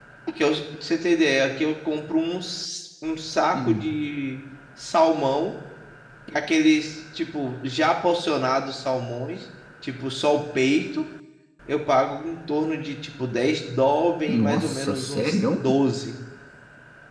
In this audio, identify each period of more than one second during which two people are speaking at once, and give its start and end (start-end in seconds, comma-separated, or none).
14.3-15.6